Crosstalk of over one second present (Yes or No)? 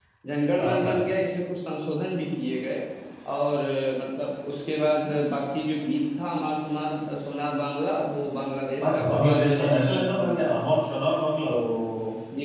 Yes